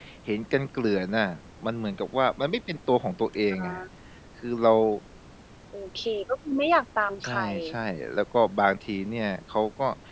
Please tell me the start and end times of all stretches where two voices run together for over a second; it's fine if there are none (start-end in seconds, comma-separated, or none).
none